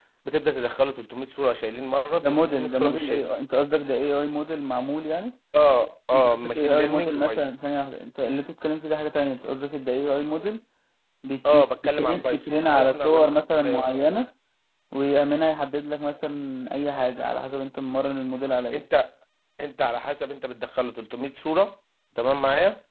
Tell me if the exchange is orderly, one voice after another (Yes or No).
No